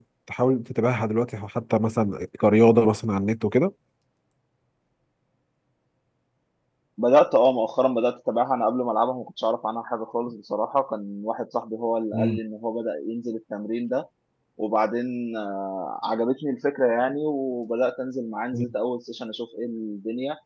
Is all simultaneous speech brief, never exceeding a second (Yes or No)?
Yes